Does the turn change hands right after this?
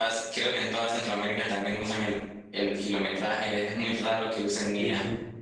Yes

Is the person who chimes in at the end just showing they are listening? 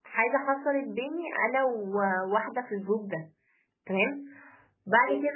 Yes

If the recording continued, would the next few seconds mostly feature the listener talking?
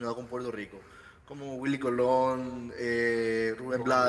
Yes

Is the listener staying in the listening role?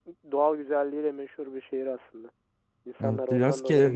No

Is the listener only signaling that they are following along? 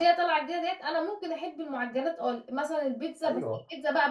Yes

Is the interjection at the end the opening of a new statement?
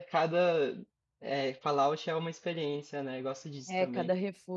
Yes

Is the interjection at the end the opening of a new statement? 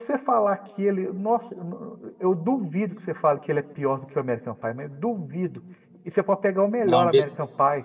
No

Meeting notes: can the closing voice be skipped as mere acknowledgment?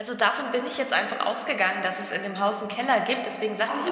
Yes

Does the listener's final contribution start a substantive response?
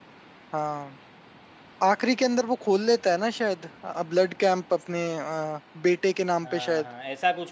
Yes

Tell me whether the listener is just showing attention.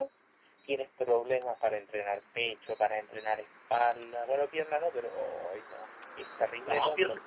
No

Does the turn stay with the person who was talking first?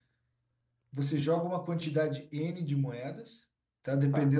Yes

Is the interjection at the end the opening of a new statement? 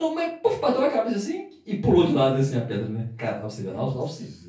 No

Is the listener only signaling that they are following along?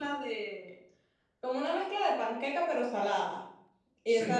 Yes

